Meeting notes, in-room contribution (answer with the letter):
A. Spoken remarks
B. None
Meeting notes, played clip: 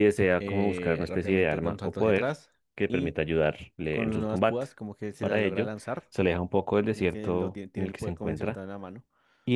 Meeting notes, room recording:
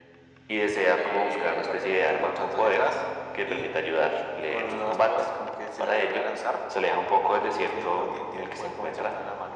B